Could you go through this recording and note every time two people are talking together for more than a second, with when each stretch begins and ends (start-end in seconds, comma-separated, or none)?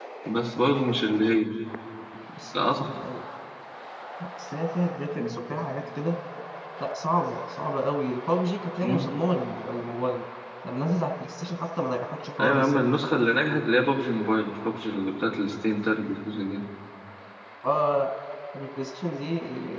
none